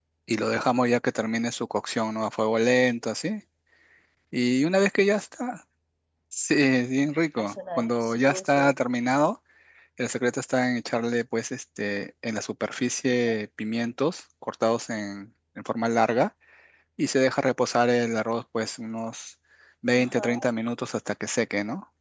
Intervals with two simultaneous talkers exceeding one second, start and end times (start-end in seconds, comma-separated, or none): 7.4-8.7